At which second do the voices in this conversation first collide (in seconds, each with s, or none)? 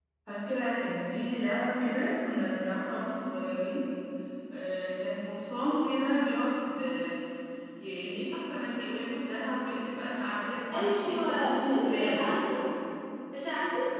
10.7 s